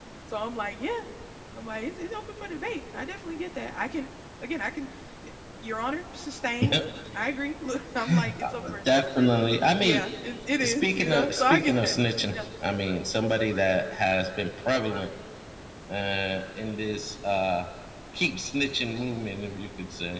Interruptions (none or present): present